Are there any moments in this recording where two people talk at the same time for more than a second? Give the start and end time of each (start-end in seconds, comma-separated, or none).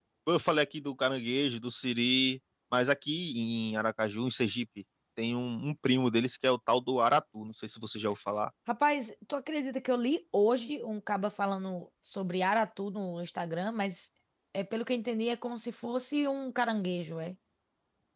none